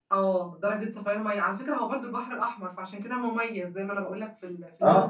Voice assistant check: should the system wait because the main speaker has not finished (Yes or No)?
No